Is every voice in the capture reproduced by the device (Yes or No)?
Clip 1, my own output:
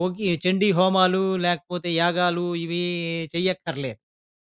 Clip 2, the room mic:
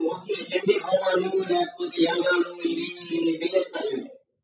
Yes